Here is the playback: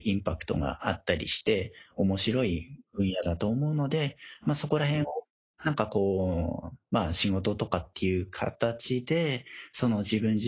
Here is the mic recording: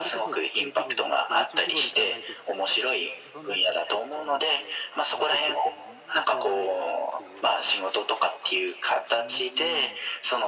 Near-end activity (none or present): present